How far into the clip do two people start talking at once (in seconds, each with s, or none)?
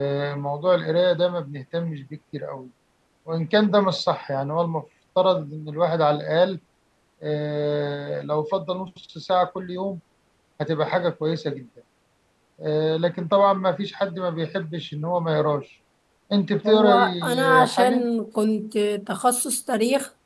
16.7 s